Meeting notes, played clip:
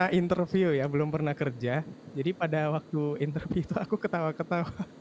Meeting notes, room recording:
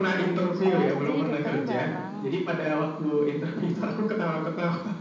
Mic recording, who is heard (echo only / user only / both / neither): both